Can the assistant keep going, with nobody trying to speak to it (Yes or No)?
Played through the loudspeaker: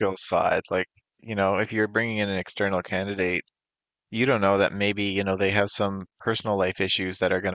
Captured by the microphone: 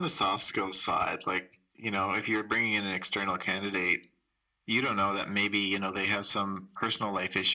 Yes